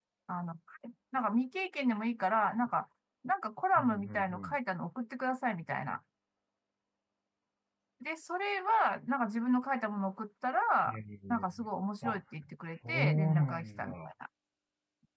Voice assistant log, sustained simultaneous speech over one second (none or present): present